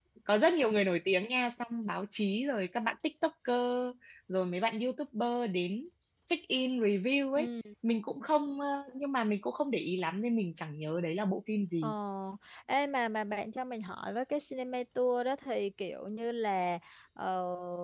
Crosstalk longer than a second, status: none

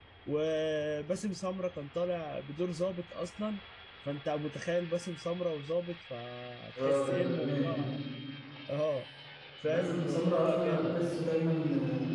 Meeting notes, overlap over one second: present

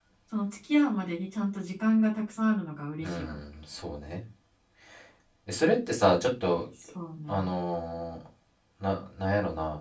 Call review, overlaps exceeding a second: none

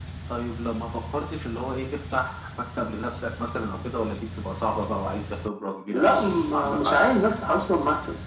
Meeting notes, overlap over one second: present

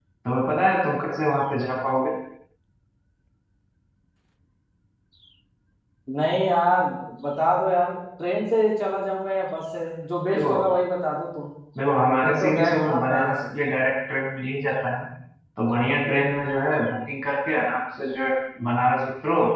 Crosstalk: present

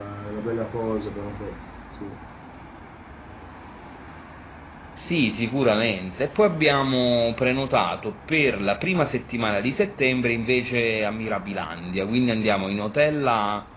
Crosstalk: none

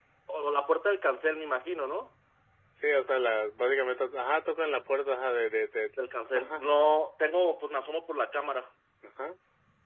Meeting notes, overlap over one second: none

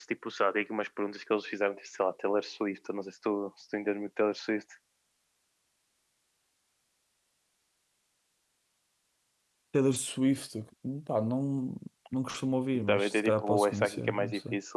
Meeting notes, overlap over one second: present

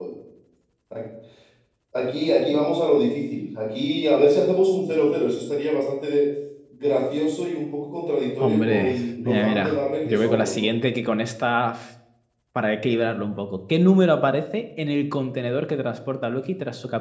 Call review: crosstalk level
present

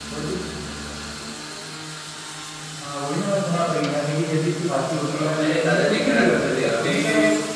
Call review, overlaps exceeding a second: present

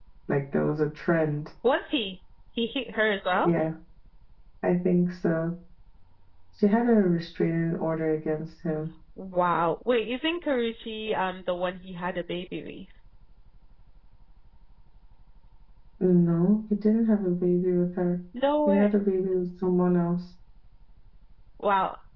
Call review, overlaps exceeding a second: none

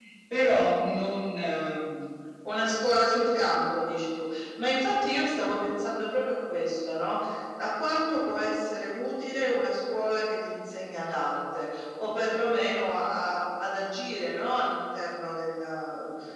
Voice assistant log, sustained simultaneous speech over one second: none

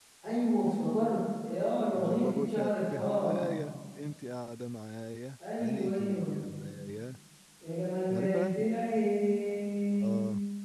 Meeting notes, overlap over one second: present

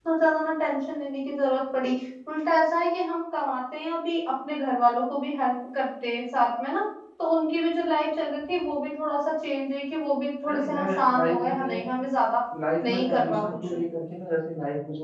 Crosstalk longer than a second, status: present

